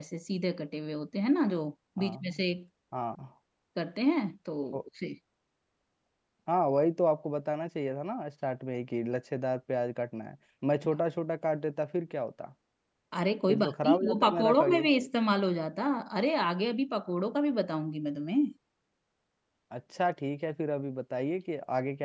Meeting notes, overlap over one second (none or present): present